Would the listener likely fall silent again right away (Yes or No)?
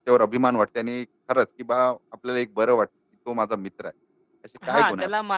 No